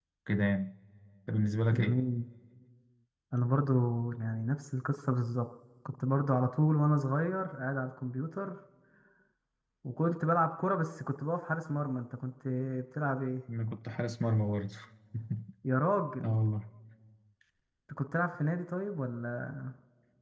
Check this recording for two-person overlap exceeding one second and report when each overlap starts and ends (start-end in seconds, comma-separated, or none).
none